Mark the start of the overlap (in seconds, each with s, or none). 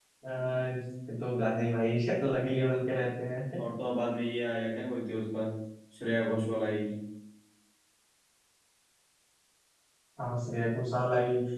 none